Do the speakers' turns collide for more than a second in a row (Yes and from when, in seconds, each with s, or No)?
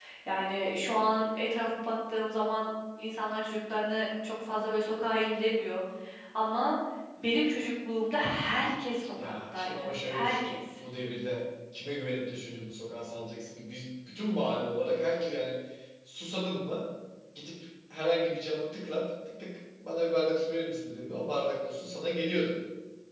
Yes, from 9.2 s